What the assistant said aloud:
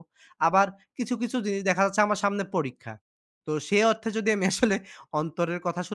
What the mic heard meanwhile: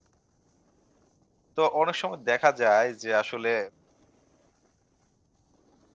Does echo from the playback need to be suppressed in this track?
No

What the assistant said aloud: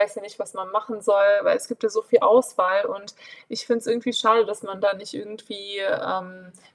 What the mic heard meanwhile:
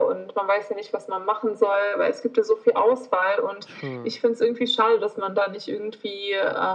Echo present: Yes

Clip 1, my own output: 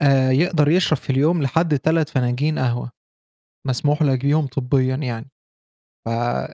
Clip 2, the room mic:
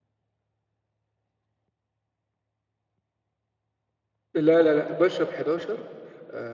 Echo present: No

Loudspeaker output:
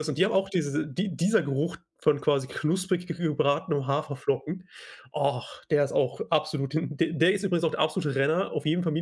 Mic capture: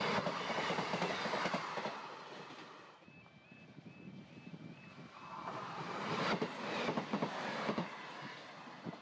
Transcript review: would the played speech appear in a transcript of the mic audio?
No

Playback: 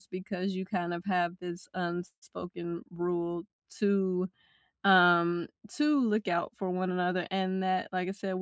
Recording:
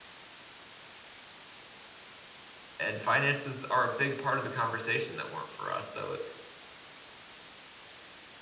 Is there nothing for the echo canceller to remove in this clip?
Yes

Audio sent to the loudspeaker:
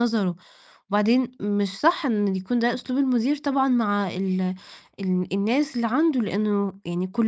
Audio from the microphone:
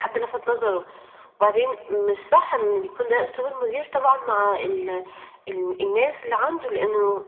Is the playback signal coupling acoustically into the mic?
Yes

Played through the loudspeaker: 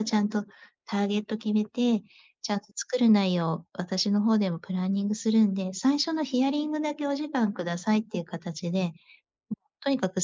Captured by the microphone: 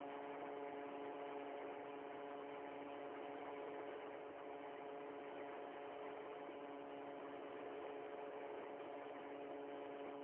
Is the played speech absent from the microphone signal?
Yes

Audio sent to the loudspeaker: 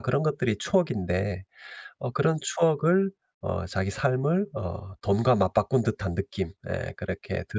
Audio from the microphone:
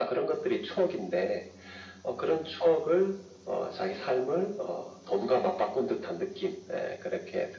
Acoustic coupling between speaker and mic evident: Yes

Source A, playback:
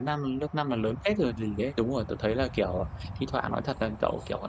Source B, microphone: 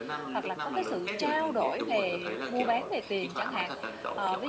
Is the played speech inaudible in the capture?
No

